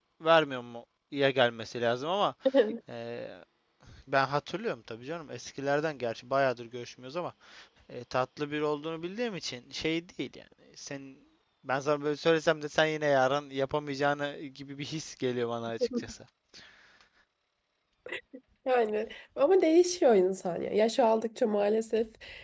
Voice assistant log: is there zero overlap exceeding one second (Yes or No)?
Yes